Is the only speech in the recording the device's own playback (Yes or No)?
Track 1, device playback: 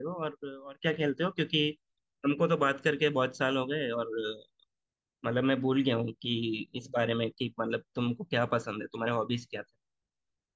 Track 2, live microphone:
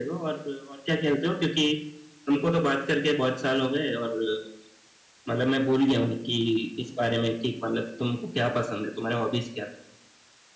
Yes